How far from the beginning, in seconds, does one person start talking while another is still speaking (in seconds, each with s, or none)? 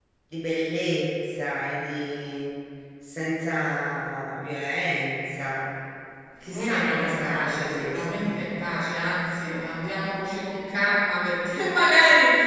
6.4 s